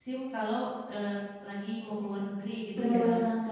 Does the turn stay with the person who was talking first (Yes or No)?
No